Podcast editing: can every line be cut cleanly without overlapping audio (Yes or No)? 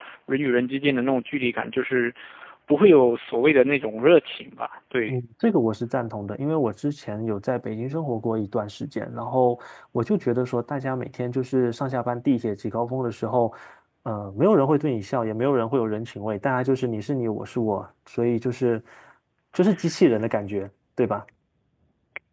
Yes